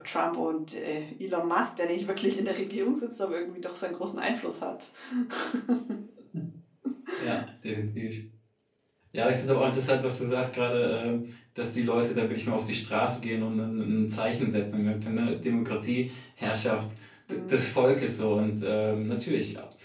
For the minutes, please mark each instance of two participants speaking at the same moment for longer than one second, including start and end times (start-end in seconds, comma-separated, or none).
none